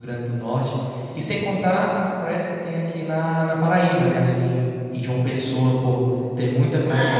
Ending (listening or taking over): taking over